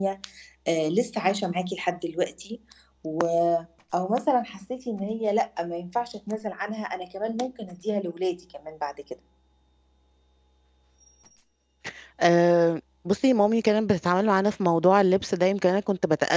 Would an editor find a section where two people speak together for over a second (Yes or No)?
No